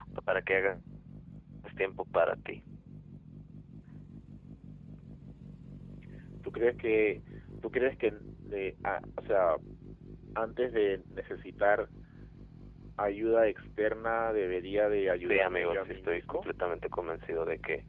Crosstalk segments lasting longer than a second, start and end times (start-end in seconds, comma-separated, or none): 15.2-16.5